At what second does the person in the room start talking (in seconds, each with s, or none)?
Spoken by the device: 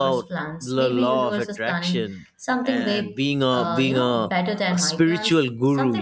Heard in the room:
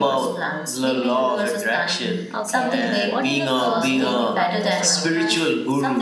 2.3 s